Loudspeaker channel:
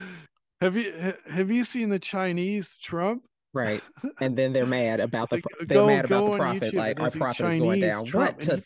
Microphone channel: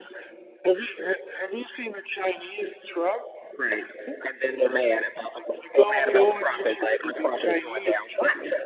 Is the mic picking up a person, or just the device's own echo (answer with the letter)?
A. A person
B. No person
B